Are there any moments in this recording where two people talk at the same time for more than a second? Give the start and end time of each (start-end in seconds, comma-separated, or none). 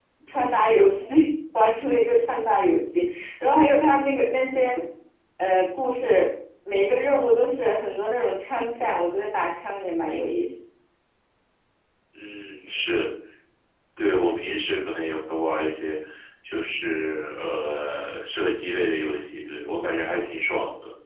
none